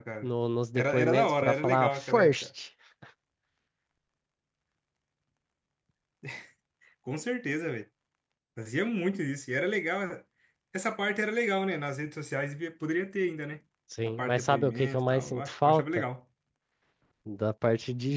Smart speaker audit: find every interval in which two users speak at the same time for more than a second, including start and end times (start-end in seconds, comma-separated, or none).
0.8-2.3, 14.2-16.0